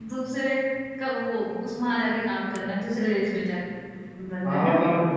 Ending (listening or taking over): taking over